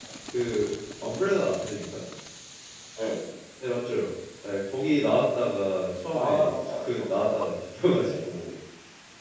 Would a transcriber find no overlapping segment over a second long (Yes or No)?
No